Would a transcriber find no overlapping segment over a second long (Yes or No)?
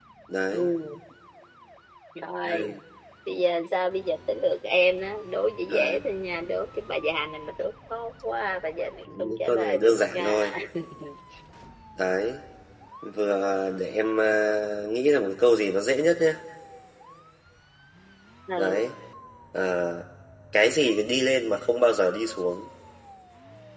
No